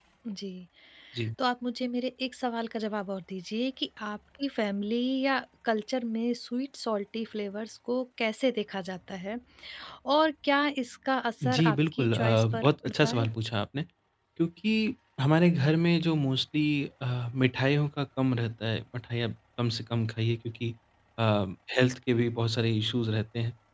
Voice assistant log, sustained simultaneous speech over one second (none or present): present